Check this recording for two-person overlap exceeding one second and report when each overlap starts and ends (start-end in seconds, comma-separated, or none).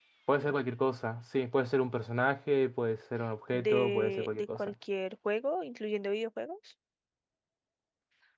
3.5-4.7